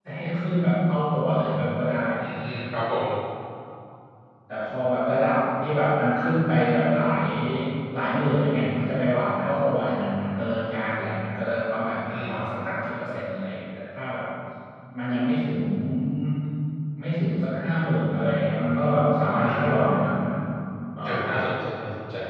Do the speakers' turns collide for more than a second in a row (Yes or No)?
No